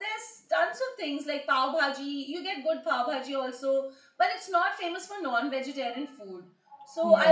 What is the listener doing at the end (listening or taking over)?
listening